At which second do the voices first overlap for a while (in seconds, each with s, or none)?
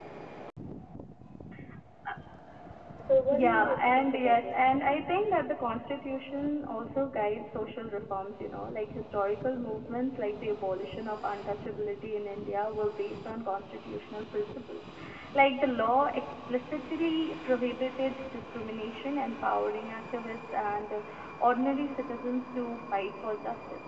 3.3 s